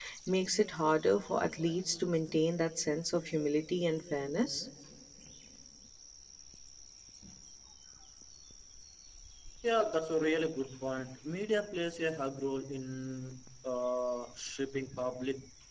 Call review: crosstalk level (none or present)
none